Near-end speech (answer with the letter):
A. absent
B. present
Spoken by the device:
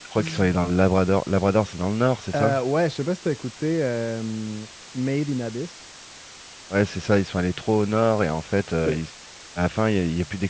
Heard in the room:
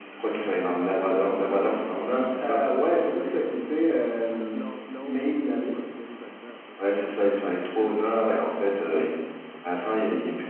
B